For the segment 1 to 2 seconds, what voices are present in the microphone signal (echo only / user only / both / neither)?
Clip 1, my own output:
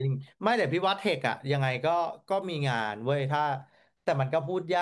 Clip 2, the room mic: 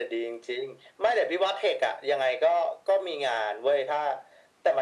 echo only